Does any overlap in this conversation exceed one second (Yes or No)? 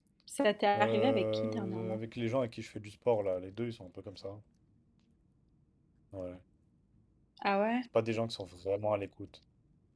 Yes